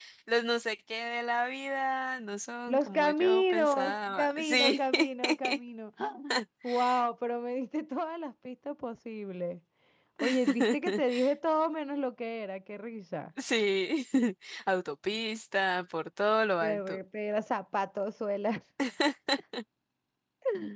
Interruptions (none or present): present